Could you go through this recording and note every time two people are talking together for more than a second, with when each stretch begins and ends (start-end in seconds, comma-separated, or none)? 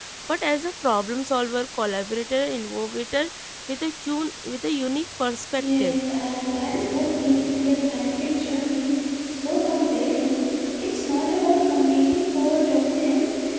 none